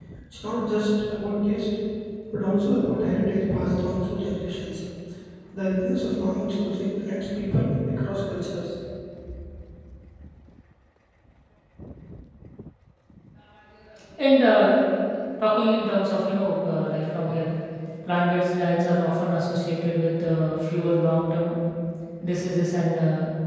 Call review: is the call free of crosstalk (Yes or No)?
Yes